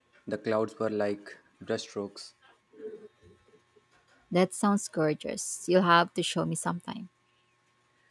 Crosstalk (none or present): none